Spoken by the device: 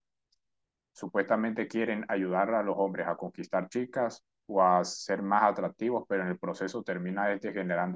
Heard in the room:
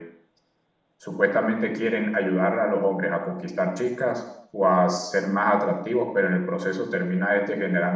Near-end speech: none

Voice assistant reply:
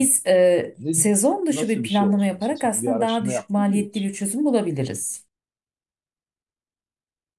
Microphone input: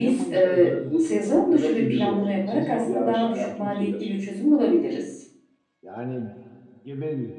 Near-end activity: present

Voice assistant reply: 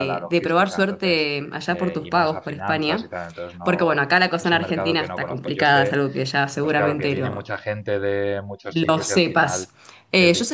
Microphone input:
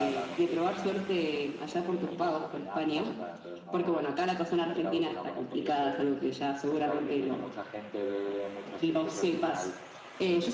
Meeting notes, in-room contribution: none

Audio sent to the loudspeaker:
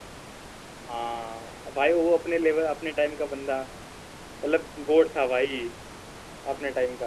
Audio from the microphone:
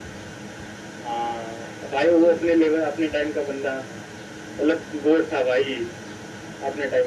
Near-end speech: present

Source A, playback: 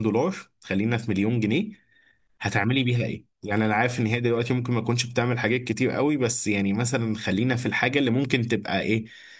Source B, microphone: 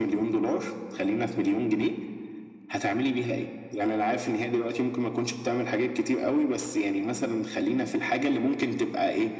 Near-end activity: none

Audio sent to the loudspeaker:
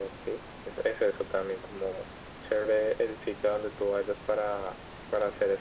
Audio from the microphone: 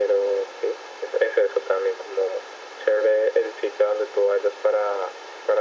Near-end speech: none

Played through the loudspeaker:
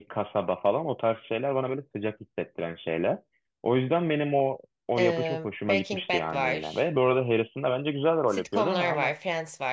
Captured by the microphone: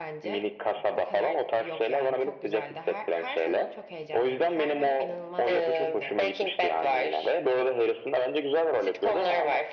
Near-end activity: present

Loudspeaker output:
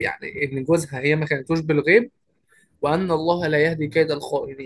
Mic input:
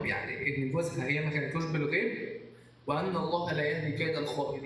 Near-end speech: none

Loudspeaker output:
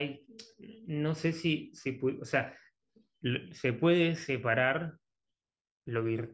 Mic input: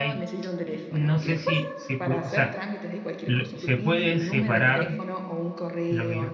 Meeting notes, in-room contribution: present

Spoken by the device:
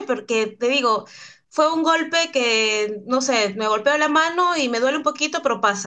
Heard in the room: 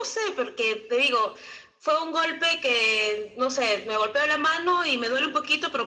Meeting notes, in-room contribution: none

